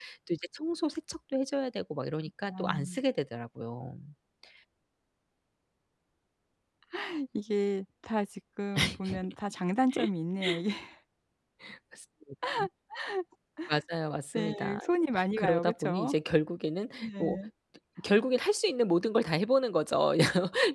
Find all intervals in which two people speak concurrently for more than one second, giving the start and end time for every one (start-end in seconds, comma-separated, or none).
14.3-16.1